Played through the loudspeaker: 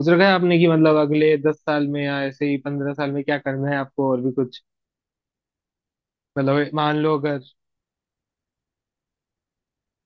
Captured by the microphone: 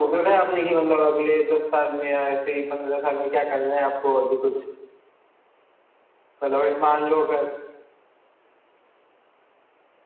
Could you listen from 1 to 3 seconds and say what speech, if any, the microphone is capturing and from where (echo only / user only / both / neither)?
echo only